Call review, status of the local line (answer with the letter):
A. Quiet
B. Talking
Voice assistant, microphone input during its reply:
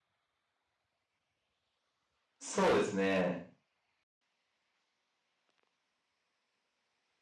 B